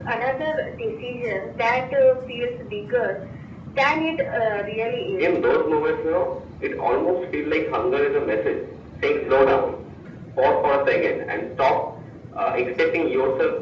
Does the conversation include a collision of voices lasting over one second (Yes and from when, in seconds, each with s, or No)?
No